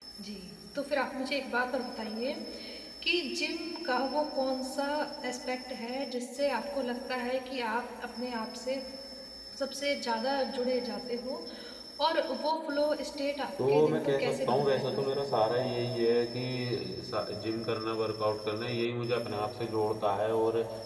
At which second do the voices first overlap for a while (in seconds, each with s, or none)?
13.6 s